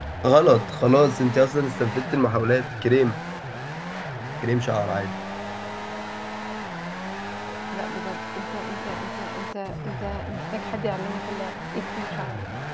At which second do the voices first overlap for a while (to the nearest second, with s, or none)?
none